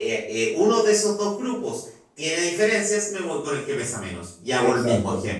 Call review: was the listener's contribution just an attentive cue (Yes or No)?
No